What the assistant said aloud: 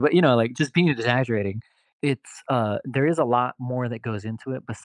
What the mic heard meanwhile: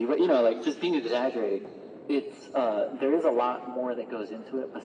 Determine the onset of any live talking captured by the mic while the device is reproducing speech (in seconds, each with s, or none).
none